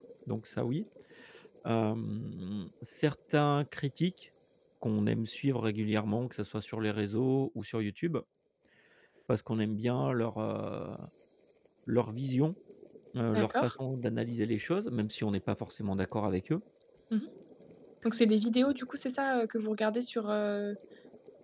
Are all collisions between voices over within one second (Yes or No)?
Yes